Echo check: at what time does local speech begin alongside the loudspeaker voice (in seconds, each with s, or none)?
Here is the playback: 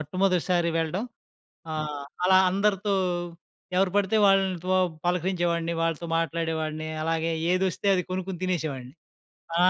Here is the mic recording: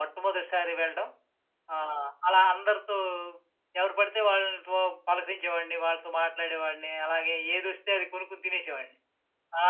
none